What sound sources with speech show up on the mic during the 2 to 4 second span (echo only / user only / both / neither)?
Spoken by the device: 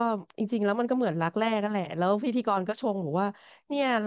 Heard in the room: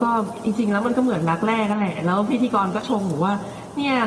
echo only